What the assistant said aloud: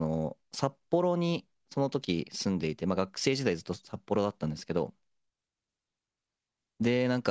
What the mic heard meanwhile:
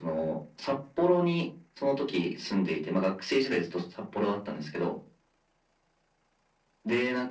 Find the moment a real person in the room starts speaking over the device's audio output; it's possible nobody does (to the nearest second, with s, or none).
none